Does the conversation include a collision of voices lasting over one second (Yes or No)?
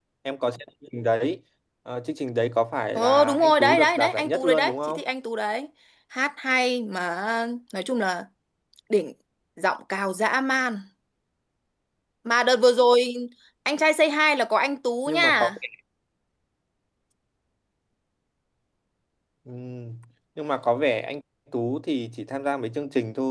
Yes